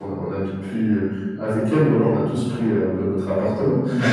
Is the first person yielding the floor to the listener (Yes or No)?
No